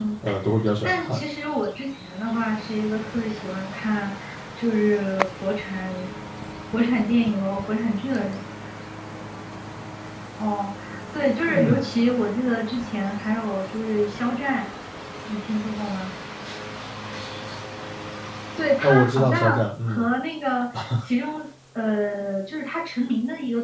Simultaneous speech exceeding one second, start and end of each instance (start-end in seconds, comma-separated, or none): 18.8-20.1